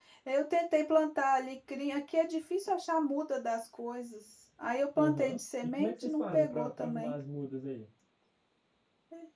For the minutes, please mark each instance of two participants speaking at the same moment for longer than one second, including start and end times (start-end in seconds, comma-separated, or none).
5.0-7.2